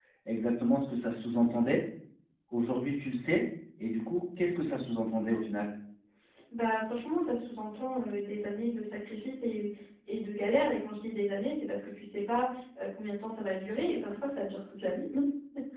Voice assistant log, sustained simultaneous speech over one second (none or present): none